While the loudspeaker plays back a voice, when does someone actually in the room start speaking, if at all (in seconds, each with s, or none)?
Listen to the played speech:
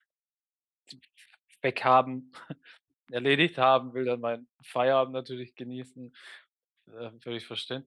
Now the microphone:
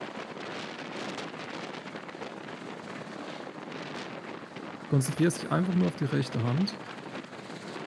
4.8 s